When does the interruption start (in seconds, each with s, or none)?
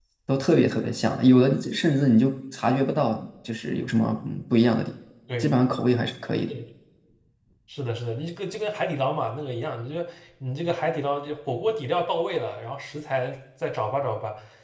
none